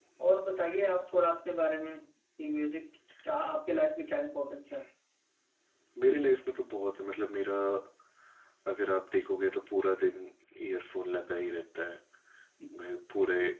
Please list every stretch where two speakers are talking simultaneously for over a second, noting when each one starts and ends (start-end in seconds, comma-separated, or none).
none